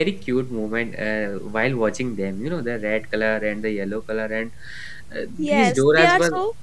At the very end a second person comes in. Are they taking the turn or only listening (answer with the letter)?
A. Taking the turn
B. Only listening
A